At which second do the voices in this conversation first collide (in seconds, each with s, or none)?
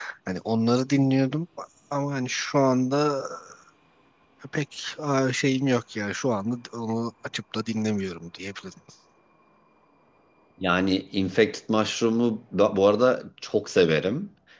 none